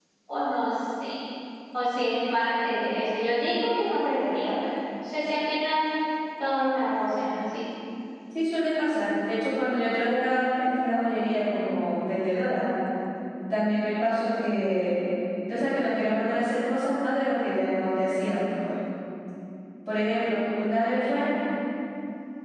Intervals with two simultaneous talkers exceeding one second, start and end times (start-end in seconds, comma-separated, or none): none